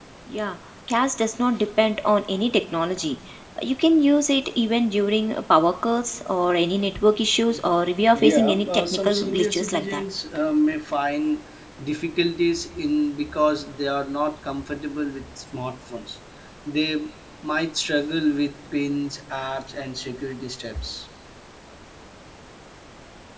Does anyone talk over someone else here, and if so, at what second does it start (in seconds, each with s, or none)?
8.2 s